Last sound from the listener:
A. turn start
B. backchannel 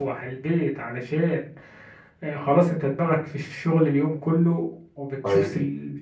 B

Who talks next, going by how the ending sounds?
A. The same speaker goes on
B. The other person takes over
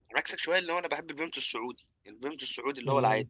B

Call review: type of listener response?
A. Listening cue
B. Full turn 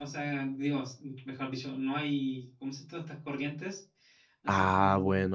B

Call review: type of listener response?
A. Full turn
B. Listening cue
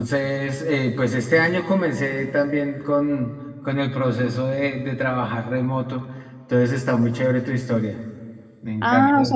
A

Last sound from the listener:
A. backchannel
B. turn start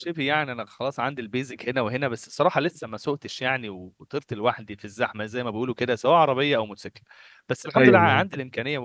A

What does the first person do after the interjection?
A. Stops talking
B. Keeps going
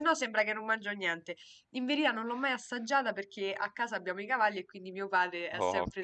B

